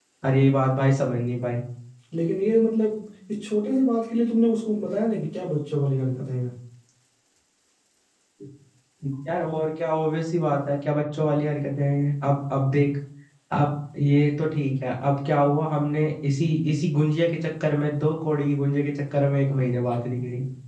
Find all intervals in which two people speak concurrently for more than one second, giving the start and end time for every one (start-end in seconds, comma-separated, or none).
none